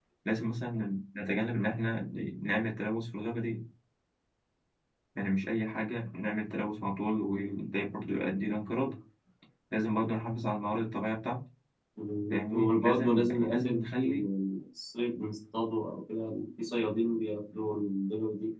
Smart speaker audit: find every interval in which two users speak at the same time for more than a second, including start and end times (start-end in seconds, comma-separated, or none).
12.3-14.3